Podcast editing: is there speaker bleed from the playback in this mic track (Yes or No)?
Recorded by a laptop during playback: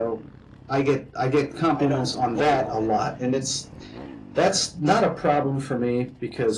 Yes